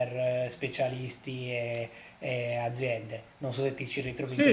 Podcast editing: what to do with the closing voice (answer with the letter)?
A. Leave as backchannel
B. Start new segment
B